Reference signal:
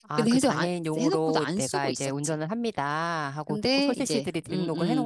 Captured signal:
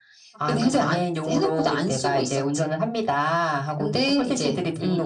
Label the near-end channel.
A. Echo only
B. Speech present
A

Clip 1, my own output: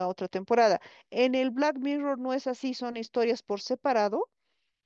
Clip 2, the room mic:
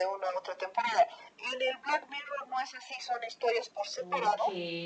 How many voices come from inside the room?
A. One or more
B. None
A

